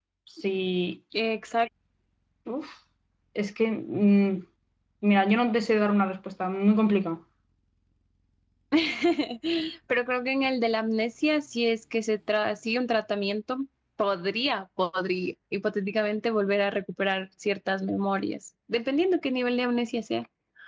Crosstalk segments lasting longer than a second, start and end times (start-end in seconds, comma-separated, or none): none